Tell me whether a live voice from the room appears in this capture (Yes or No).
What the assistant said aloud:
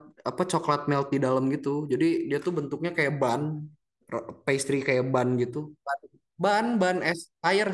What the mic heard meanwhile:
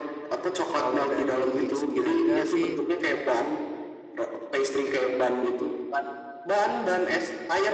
Yes